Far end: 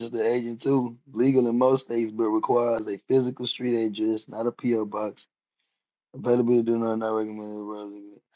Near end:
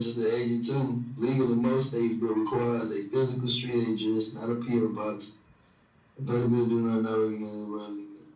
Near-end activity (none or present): none